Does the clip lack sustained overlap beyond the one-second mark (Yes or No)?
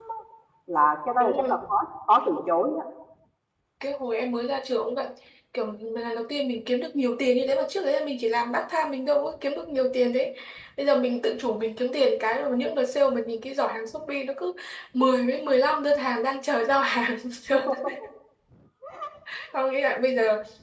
Yes